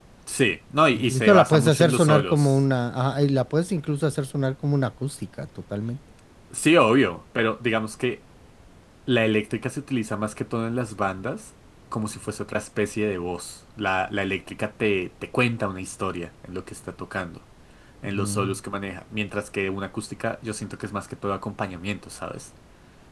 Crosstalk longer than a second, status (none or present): present